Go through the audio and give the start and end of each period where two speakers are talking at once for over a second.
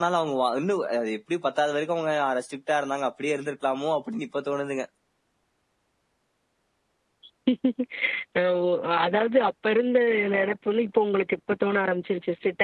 none

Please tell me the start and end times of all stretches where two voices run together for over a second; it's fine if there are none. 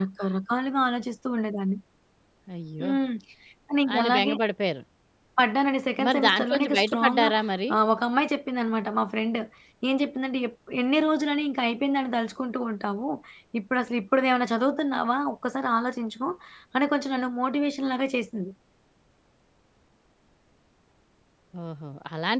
6.0-7.3

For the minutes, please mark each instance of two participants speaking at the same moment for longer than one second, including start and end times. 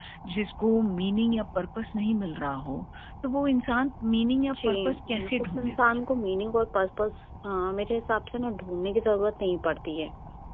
4.5-6.0

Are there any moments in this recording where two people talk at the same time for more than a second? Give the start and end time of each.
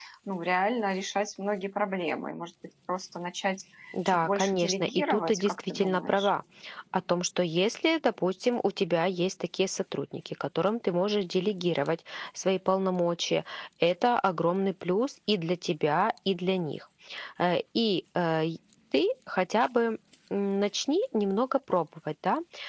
4.0-6.3

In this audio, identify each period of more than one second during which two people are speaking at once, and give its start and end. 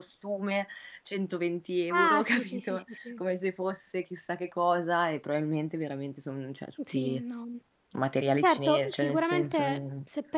1.9-3.2, 8.4-9.8

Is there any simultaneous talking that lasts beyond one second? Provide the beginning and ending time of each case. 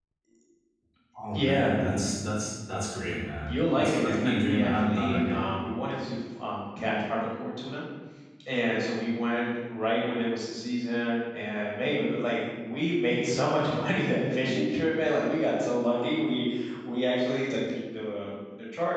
3.5-5.4

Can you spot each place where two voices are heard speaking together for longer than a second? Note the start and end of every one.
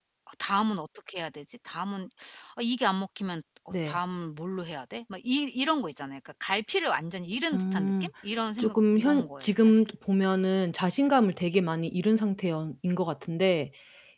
8.6-9.8

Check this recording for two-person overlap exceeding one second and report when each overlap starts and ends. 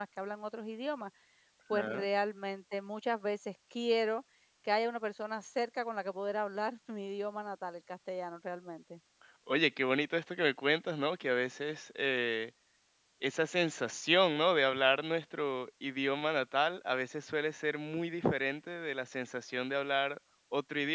none

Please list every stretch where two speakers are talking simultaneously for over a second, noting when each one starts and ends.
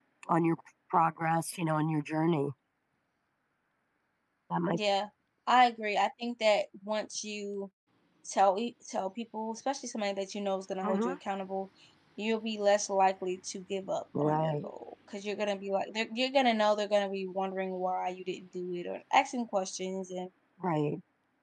none

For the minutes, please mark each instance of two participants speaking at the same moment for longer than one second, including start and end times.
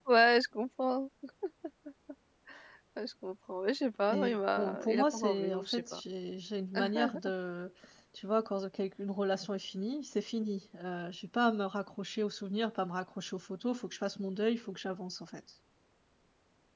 4.1-6.0

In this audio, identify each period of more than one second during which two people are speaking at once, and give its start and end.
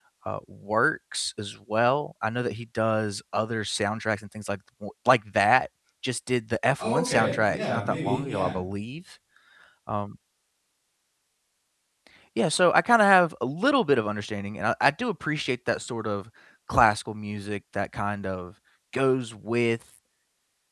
6.8-8.6

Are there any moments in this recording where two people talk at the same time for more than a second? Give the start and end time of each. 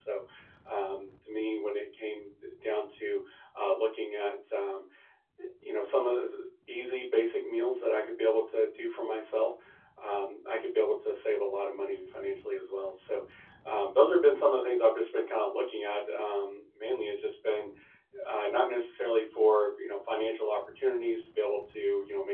none

